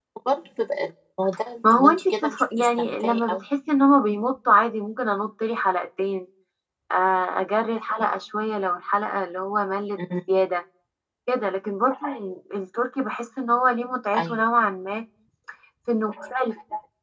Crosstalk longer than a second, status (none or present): present